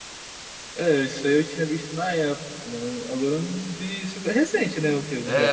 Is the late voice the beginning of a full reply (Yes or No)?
Yes